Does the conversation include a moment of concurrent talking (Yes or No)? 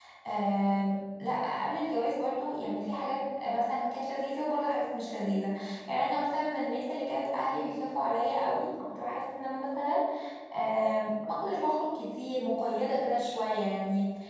No